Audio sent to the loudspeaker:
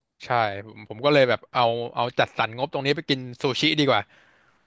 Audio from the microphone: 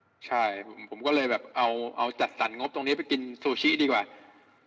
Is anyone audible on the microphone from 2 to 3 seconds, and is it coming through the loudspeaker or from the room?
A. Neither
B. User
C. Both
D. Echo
D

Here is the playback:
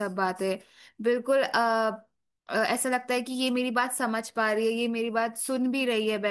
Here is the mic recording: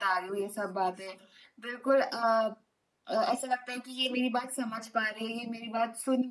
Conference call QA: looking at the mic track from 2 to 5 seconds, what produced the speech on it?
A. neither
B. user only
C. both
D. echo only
D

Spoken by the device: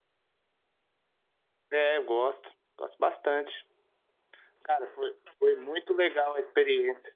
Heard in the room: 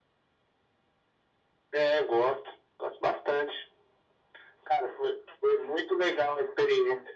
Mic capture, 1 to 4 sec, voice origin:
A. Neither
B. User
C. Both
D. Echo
D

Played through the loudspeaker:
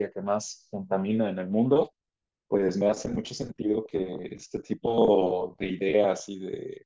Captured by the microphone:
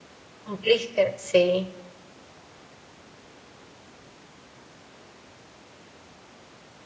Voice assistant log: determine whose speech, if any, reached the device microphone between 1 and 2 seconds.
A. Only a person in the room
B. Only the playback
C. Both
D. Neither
A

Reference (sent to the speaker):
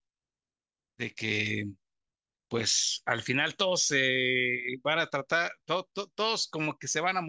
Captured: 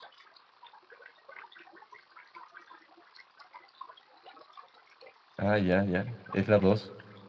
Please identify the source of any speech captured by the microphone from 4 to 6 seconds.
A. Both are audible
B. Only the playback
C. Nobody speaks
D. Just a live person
D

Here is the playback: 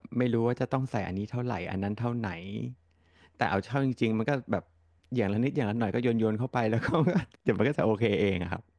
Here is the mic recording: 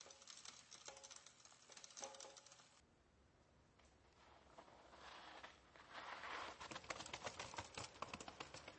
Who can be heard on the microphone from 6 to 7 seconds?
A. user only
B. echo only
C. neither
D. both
C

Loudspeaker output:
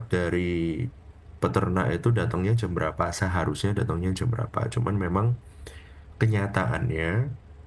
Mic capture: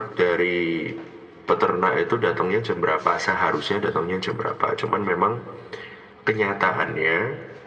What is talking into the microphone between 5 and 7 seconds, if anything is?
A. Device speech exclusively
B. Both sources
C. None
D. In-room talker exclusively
A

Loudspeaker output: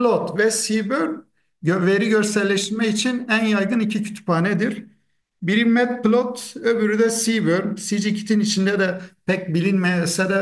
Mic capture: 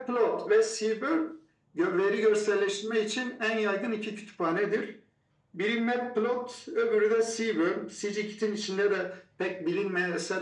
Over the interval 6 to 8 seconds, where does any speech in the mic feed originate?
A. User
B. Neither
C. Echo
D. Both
C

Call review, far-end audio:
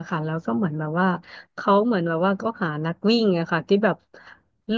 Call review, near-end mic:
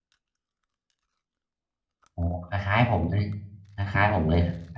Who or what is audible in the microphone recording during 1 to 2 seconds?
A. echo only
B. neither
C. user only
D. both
B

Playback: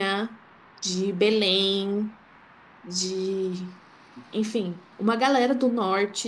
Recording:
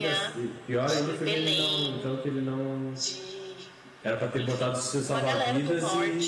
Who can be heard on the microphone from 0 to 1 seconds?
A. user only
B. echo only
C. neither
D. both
D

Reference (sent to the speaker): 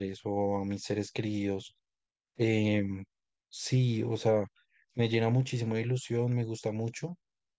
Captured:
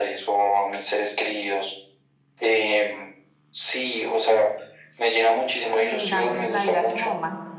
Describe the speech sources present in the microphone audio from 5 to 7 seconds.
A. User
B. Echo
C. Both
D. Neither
C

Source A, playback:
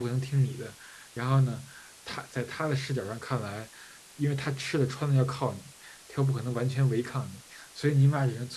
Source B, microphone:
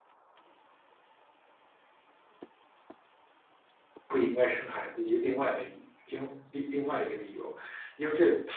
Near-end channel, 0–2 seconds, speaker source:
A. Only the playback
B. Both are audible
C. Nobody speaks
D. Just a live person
C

